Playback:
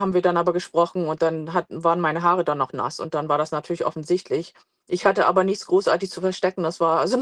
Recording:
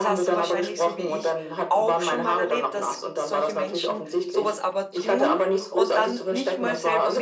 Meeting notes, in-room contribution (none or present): present